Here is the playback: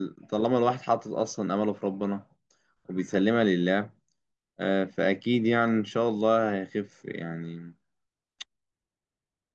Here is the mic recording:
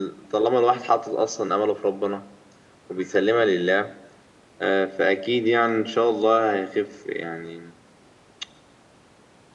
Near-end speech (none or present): none